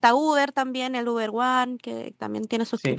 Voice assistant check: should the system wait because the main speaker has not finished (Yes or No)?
No